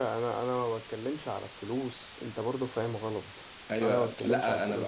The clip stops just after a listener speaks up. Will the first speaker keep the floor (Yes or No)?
No